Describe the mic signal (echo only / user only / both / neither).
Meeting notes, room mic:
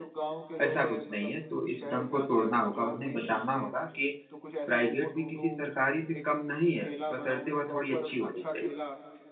both